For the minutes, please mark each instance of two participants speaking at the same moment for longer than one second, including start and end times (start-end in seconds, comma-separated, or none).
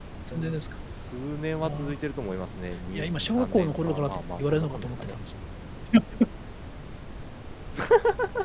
3.0-5.1